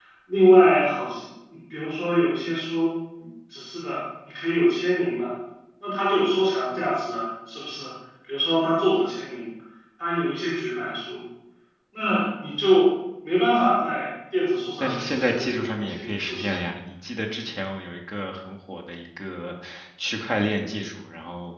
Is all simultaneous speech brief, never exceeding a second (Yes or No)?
No